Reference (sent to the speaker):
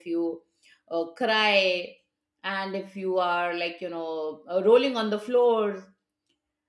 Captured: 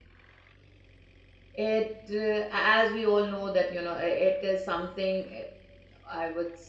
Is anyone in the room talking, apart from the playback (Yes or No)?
Yes